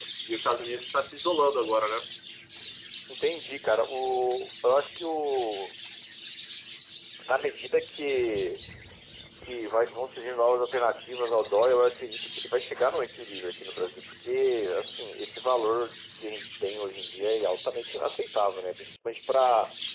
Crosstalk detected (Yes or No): No